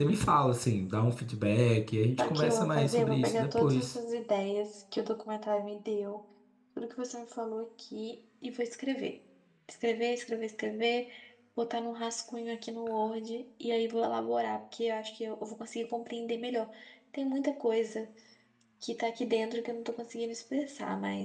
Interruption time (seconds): 2.2 s

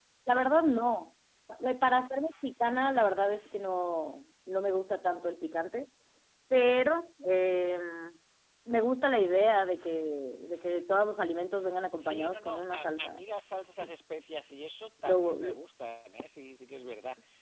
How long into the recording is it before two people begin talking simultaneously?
12.0 s

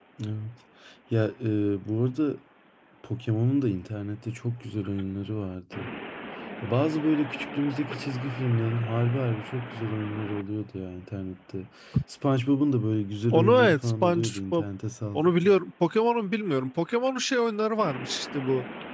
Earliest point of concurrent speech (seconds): 13.3 s

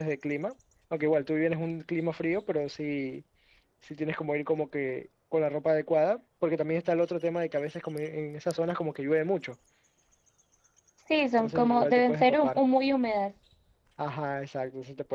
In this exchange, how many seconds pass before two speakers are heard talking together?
11.4 s

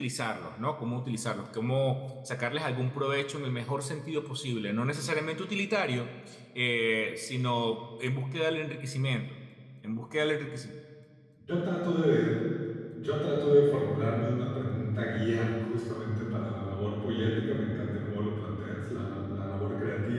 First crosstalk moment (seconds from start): none

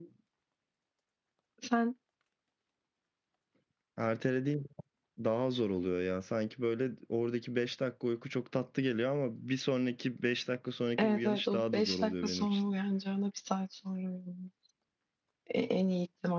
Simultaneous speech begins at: 11.0 s

